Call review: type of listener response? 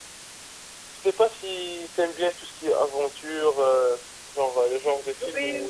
listening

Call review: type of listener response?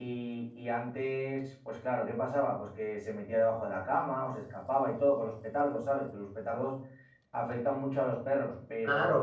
taking over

